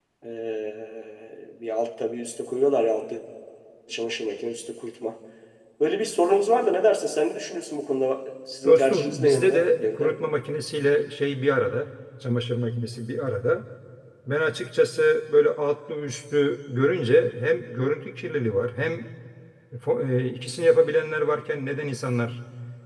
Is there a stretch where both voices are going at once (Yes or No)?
Yes